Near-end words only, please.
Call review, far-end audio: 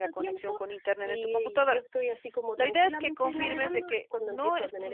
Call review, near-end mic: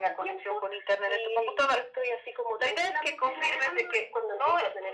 none

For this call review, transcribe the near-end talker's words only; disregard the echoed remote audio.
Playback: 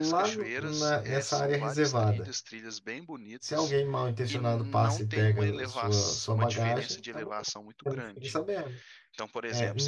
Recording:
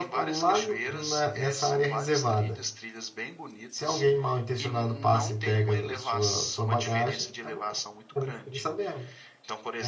none

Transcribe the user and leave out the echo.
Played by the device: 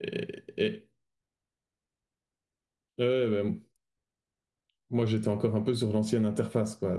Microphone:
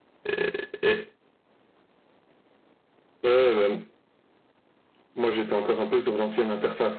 none

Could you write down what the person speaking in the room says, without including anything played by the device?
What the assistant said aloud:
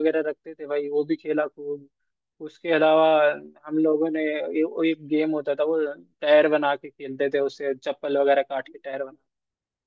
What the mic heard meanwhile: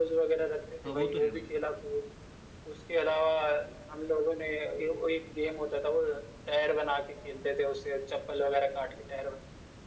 हाँ वो तो है भाई

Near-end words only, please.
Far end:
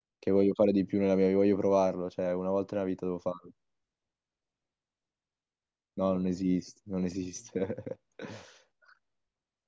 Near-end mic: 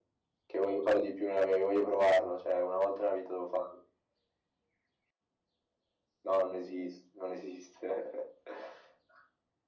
none

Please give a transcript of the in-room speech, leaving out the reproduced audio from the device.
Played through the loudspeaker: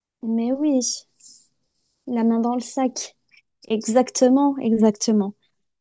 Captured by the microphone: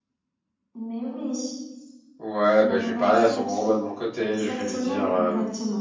Ouais, bah, je vais parler à son droma de mon côté, je vais lui dire, euh,

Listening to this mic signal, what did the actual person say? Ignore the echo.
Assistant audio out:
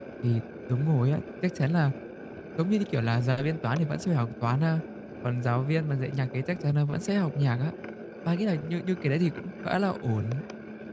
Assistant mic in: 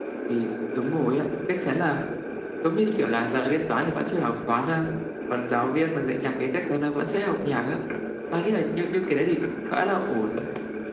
none

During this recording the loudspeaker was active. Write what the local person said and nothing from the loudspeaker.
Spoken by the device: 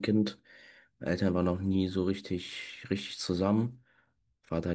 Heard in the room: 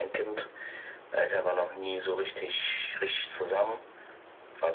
none

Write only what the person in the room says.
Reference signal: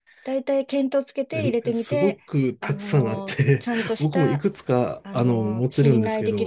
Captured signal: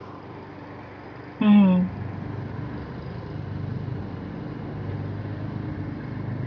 うん。

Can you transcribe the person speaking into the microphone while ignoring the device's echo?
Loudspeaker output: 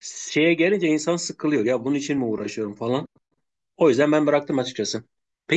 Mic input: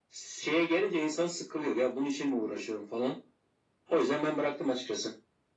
none

